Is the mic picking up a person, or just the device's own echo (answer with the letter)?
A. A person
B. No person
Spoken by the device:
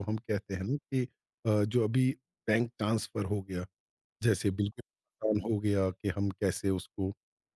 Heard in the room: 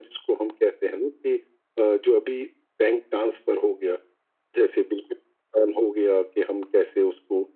B